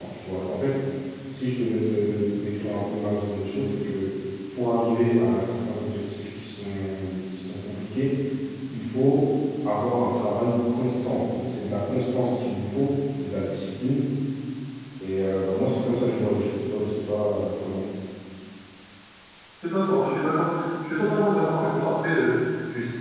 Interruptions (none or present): none